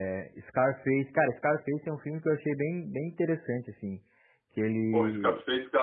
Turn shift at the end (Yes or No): Yes